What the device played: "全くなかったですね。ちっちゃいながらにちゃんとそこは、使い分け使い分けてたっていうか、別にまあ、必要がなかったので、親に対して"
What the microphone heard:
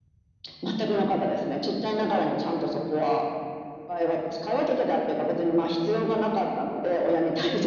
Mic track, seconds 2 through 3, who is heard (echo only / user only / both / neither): echo only